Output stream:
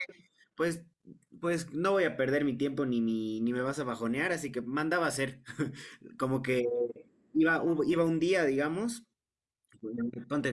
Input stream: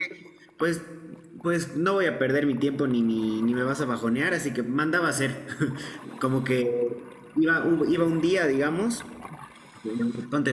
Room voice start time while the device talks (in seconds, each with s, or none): none